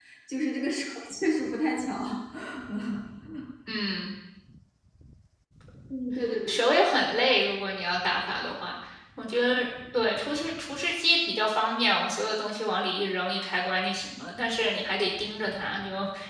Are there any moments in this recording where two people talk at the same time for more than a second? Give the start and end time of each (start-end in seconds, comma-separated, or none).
none